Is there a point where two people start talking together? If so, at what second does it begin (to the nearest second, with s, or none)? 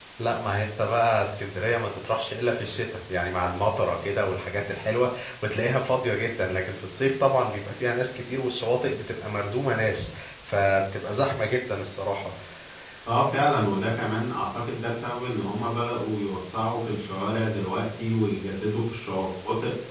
none